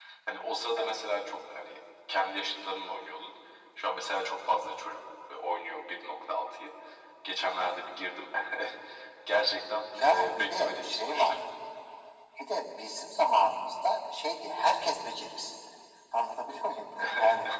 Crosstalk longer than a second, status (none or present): present